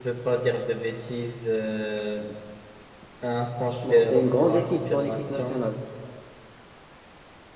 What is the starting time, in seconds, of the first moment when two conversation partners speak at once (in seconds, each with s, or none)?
3.8 s